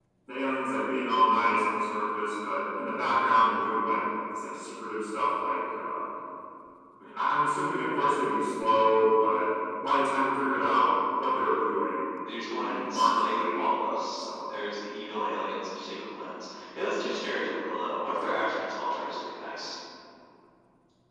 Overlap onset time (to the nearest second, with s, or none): 13 s